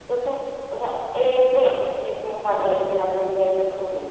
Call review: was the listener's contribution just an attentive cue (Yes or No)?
No